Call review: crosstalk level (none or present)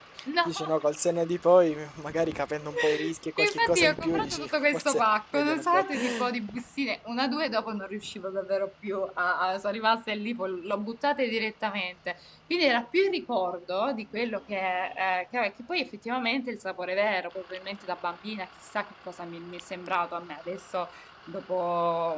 present